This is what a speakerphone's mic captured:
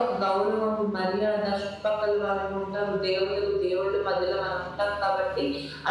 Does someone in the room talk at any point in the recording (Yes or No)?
No